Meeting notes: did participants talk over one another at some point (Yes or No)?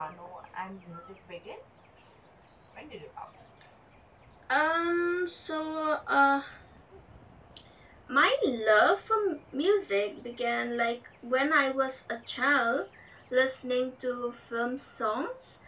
No